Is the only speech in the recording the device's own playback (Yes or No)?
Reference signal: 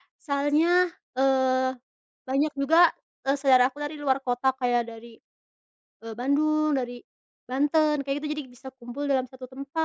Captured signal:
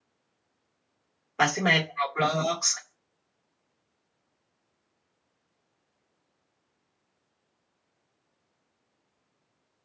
No